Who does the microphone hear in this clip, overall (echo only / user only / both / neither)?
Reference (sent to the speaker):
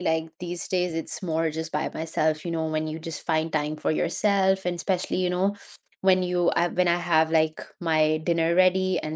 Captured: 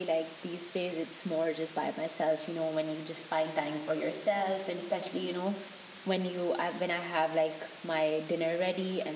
echo only